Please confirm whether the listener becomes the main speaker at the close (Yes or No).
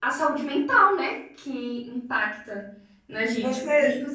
No